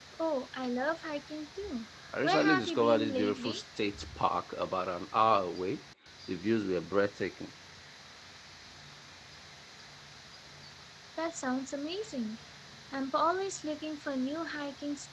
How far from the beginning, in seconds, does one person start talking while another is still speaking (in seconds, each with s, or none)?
2.2 s